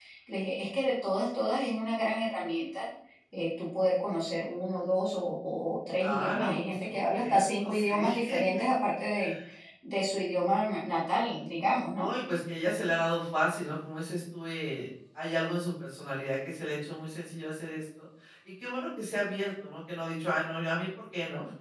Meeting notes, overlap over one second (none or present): present